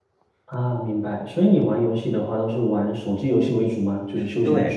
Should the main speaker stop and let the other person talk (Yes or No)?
Yes